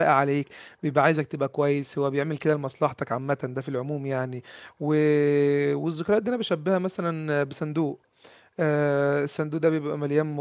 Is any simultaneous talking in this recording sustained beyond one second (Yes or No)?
No